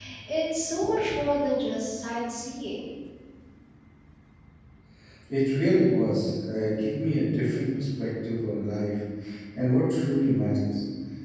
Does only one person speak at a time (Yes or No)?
Yes